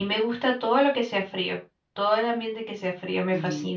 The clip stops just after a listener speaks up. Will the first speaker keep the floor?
No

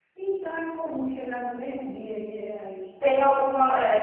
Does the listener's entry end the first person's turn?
Yes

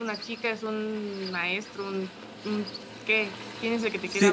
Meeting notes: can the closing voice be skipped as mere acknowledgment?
No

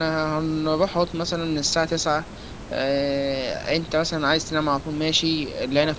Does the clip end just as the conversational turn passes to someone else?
No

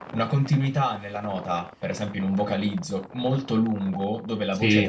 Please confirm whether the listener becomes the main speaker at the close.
No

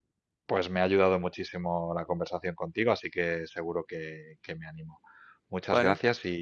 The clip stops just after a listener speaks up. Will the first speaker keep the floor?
Yes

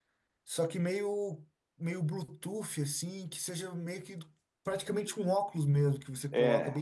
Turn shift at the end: Yes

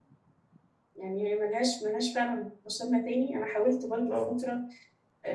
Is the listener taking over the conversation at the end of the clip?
No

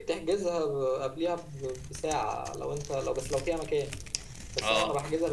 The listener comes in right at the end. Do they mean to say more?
No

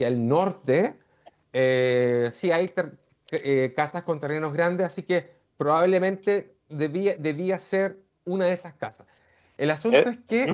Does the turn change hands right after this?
Yes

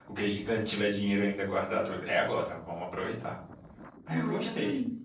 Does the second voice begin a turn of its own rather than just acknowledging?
Yes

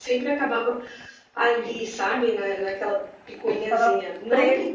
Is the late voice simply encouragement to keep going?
No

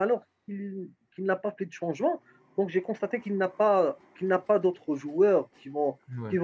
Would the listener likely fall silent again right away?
Yes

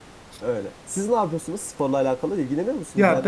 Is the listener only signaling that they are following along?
No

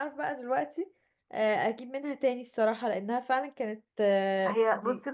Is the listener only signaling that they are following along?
No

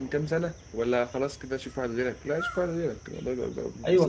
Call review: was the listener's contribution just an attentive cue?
No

